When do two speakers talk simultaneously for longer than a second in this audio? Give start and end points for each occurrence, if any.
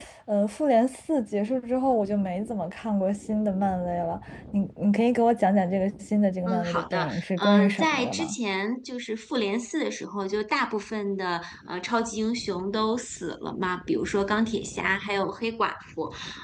6.4-8.4

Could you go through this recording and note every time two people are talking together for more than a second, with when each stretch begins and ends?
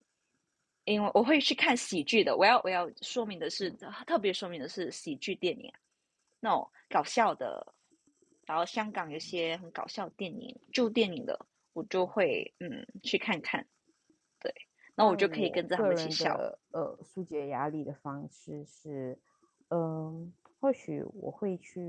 15.0-16.3

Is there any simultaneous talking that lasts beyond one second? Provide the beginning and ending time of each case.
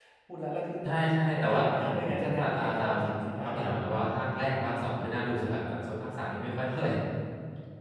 1.3-3.0

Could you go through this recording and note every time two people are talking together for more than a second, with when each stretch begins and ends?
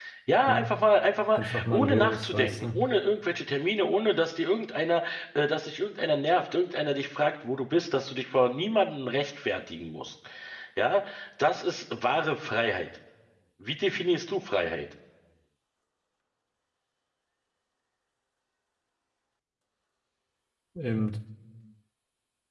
1.3-2.8

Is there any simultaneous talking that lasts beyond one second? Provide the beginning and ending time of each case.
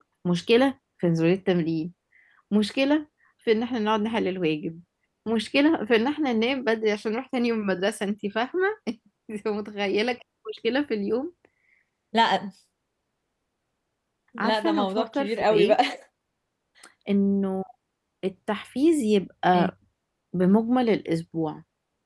14.4-15.8

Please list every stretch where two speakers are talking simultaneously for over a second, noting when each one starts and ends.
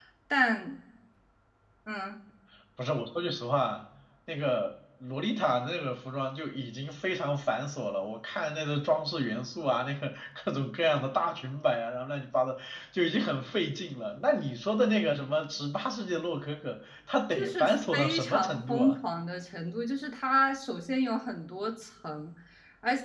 17.4-19.0

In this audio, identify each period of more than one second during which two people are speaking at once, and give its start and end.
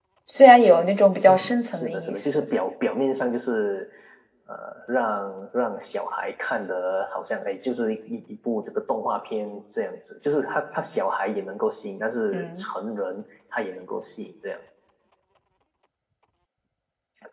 1.3-2.5

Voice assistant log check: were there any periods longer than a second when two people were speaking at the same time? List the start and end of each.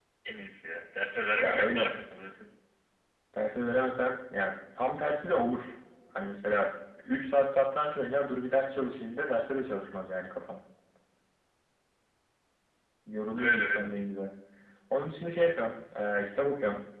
none

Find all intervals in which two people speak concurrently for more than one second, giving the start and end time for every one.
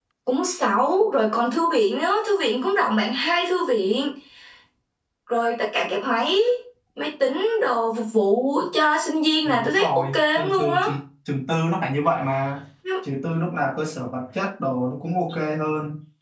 9.4-10.8

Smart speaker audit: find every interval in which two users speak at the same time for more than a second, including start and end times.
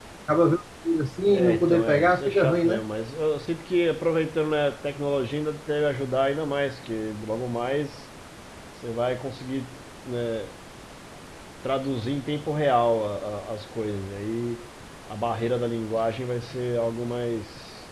1.3-2.9

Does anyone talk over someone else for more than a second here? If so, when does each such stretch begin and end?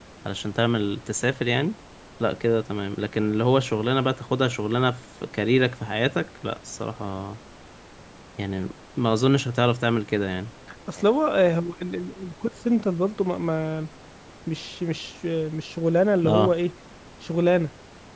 none

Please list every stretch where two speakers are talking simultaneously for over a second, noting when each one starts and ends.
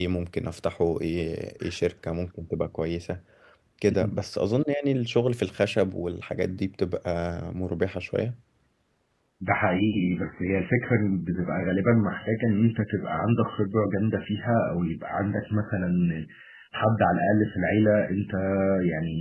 none

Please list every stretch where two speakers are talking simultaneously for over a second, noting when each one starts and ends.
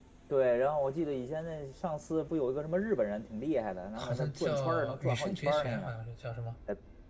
4.0-5.9

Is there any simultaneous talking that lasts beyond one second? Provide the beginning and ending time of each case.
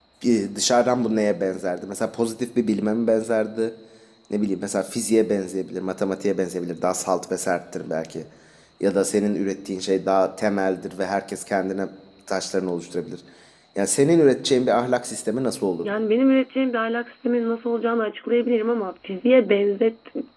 none

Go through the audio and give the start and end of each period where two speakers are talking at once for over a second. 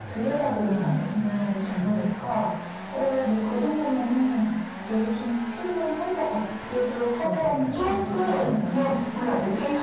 7.2-8.9

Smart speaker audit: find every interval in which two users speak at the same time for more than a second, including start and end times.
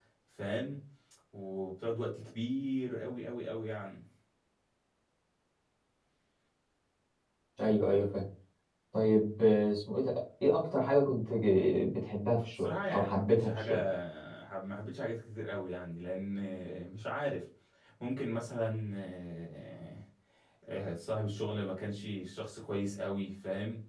12.5-13.8

